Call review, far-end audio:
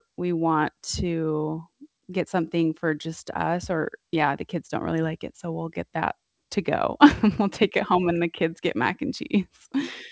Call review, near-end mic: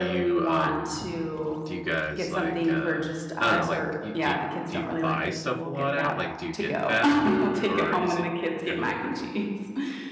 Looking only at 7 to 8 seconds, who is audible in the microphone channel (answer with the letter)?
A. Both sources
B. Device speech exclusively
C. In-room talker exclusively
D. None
A